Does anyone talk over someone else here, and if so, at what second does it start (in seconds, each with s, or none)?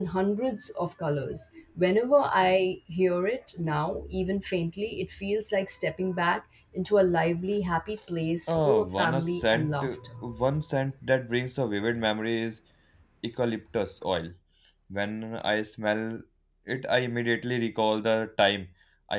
8.5 s